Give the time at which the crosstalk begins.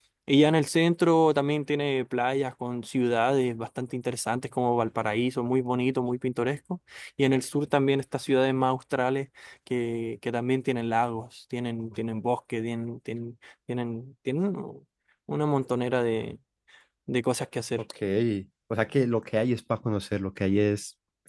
none

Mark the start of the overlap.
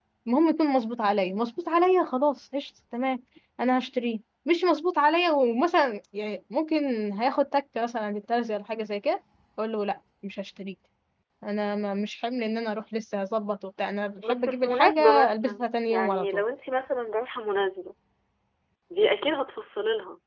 14 s

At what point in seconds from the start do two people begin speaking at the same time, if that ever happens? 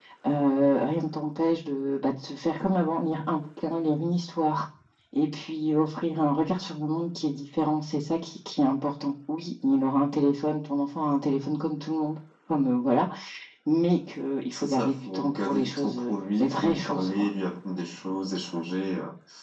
15 s

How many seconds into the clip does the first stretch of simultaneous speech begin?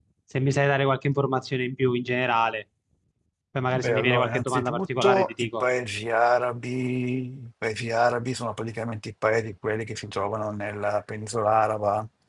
4 s

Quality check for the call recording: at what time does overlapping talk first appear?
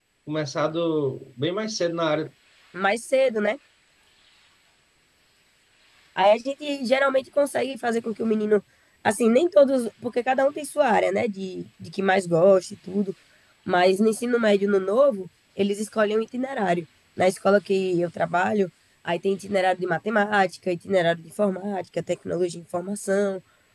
none

